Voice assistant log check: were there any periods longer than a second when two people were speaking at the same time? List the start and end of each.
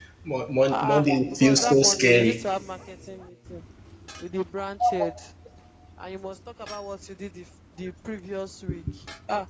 0.7-2.4

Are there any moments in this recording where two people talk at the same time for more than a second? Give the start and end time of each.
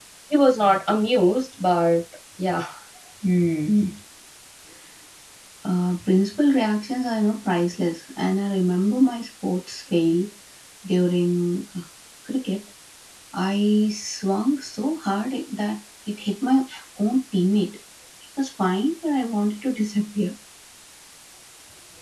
none

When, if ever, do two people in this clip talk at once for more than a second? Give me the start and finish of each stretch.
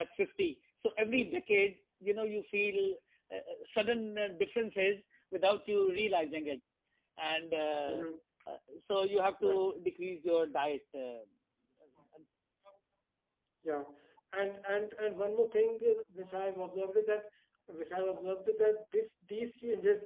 none

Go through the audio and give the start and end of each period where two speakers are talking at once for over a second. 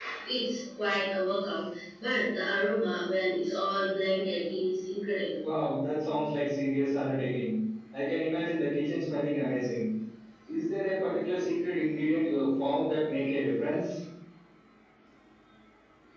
none

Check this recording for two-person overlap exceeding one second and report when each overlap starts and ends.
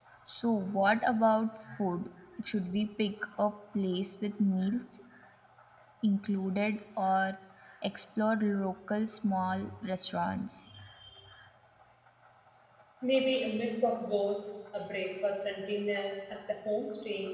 none

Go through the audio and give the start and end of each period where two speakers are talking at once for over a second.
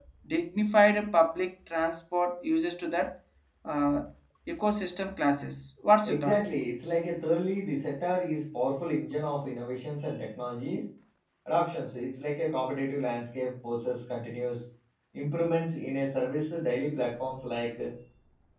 none

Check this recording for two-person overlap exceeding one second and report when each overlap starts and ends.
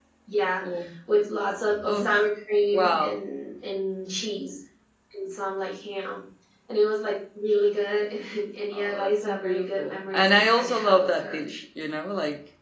8.7-11.4

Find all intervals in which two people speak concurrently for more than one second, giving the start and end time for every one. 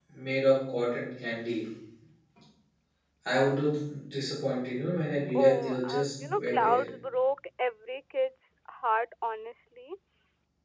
5.3-6.8

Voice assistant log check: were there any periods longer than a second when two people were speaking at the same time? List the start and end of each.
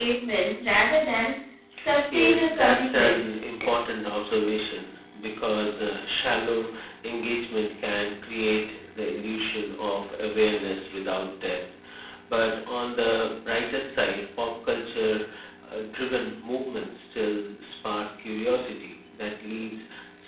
2.1-3.4

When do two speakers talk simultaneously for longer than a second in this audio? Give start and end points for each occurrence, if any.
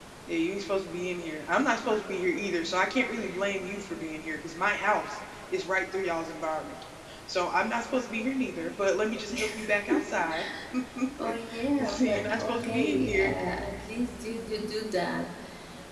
11.2-13.4

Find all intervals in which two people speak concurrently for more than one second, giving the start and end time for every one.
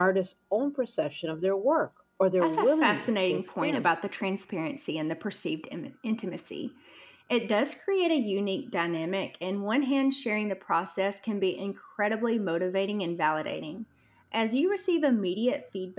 2.4-3.9

